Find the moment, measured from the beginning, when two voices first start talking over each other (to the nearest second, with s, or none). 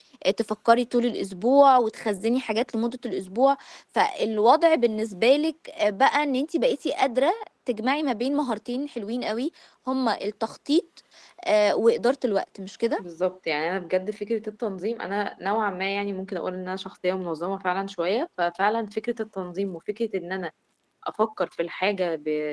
none